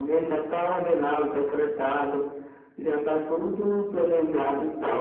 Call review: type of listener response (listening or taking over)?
listening